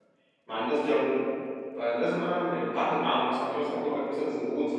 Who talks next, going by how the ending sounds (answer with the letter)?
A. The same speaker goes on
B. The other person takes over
A